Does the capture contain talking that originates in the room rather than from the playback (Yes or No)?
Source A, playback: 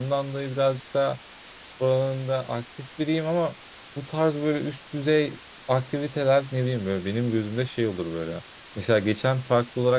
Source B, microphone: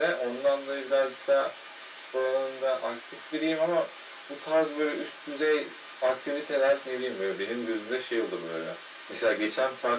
No